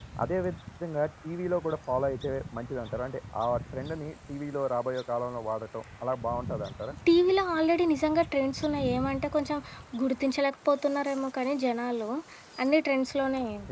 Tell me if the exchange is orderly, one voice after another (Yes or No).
Yes